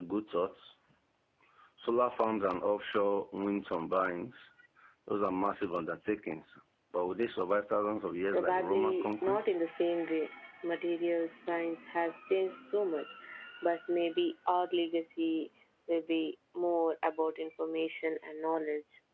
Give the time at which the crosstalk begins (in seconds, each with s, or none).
8.3 s